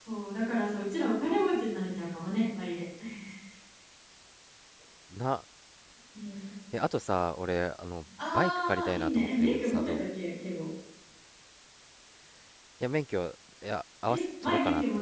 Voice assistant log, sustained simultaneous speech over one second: present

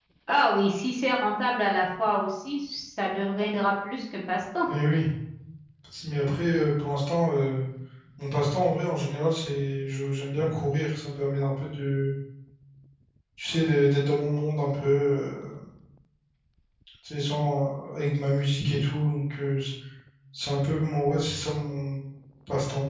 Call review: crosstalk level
none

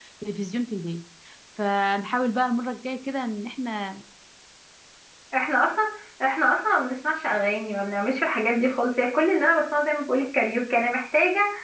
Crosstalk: none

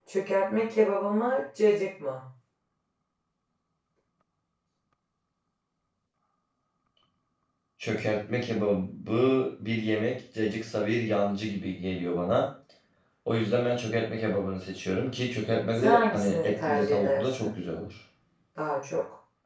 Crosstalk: present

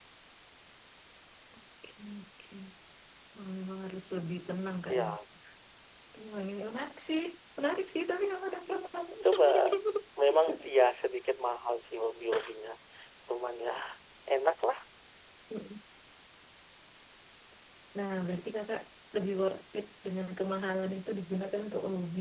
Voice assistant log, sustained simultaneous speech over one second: none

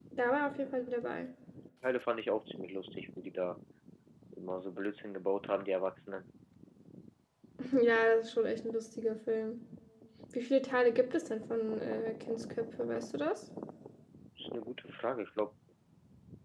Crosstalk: none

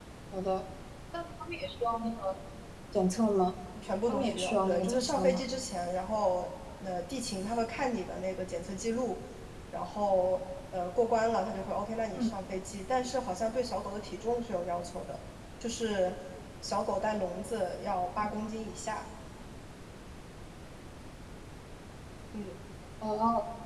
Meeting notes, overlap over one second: present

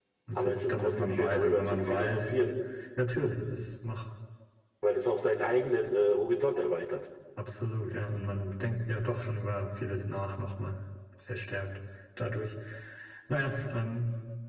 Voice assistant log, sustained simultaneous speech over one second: present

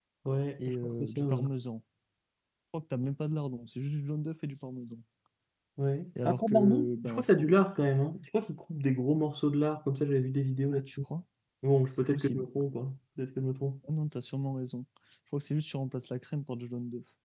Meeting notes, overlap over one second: present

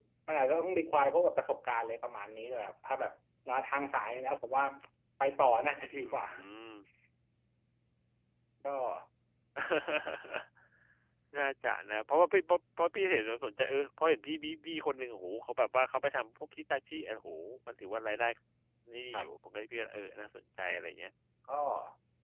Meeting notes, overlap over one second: none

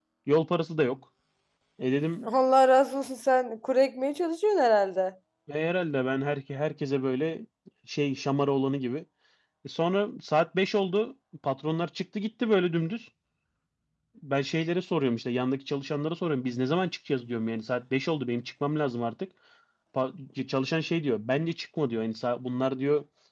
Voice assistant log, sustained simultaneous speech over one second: none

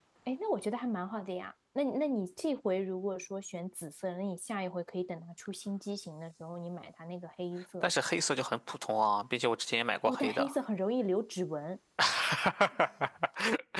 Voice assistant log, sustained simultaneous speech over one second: none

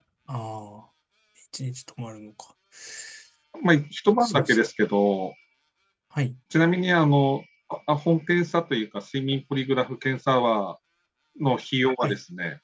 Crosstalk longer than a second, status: none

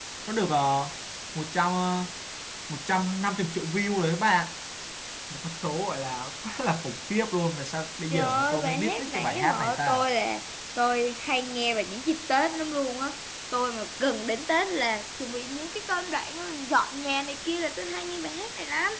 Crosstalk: present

